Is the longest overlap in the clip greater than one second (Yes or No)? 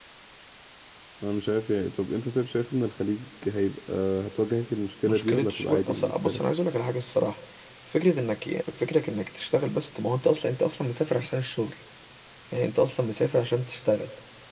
Yes